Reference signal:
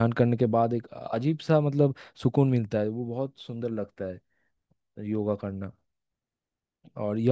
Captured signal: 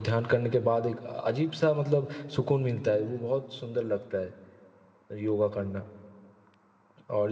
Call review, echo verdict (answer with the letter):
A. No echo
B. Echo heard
B